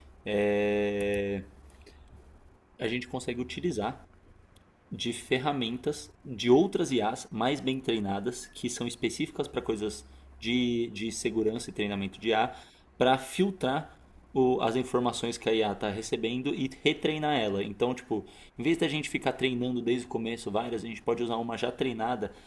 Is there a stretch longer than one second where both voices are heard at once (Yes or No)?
No